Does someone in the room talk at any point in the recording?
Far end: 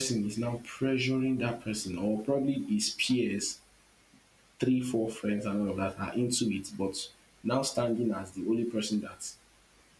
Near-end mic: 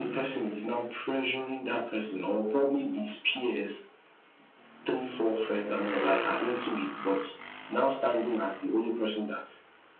No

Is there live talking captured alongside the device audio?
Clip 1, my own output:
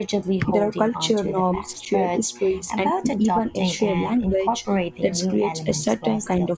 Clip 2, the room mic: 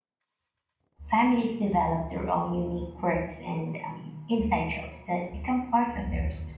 Yes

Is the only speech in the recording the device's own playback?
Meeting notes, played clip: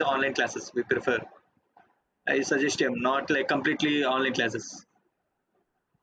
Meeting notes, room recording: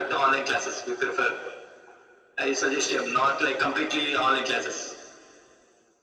Yes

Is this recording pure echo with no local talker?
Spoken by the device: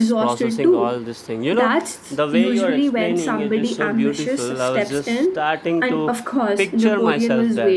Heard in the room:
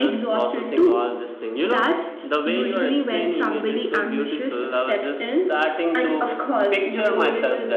Yes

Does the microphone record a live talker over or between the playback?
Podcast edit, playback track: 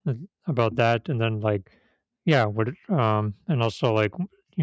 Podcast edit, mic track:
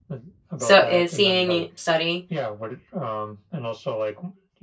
Yes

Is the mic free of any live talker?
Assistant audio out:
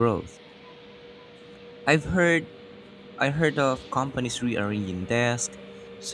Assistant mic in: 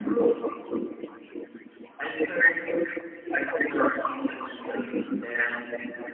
Yes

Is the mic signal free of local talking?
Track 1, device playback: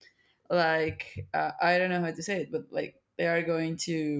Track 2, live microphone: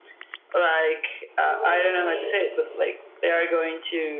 No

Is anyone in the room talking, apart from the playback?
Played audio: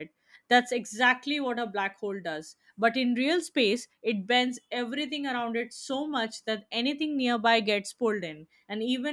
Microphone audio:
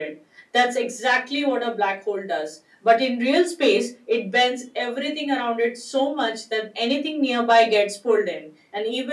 No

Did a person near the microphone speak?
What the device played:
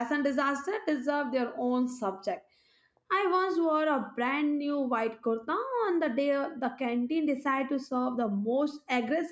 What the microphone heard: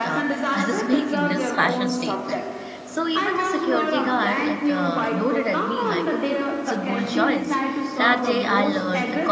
Yes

